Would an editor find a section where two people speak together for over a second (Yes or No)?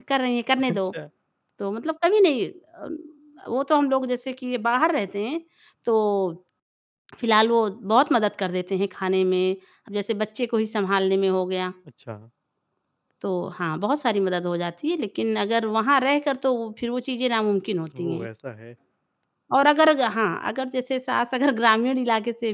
No